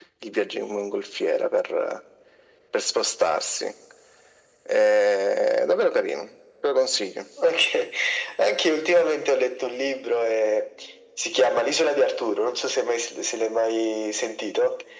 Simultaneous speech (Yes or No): No